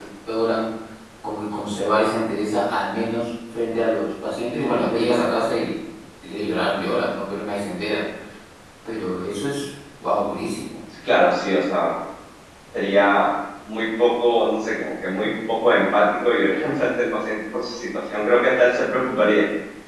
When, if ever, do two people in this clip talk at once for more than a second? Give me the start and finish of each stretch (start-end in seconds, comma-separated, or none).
none